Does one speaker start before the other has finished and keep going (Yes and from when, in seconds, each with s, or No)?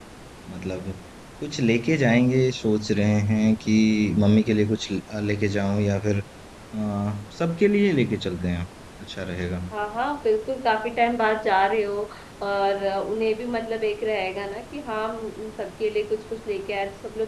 No